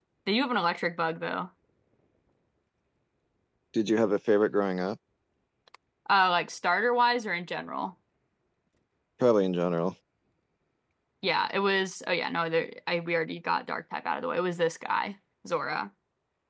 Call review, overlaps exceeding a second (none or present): none